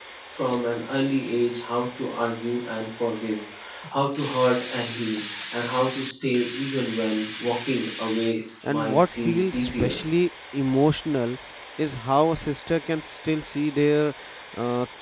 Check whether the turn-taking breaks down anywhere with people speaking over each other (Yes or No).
Yes